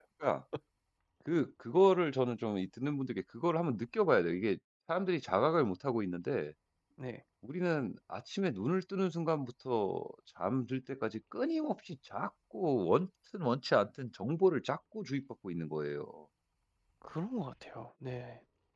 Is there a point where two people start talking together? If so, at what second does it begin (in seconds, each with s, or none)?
none